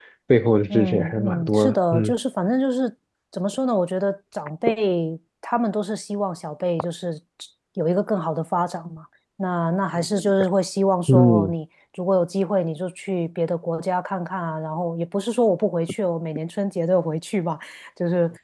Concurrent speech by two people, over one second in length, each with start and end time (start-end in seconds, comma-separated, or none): 0.7-2.1